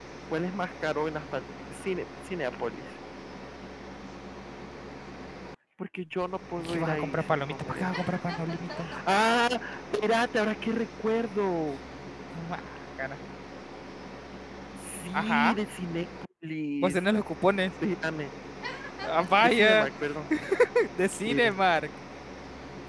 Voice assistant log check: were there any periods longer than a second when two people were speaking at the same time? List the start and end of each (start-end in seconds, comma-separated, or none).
6.6-8.0